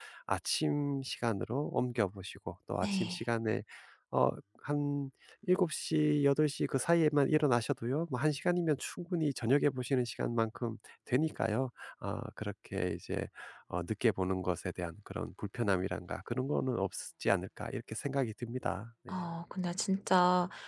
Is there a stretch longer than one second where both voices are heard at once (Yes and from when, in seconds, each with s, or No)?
No